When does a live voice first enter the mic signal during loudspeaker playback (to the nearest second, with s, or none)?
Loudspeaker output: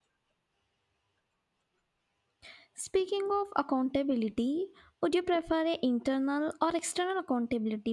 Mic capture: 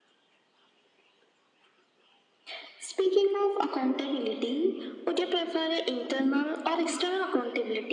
none